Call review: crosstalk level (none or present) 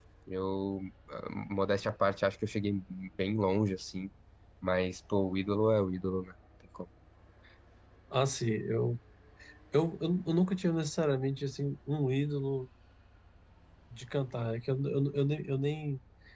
none